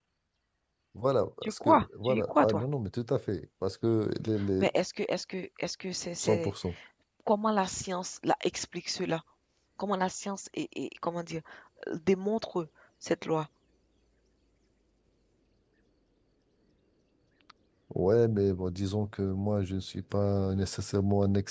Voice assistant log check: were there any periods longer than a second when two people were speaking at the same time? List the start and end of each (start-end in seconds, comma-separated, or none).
1.4-2.6